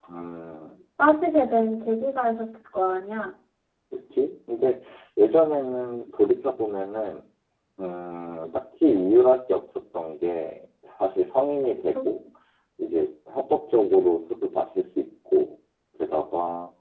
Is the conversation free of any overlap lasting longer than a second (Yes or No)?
Yes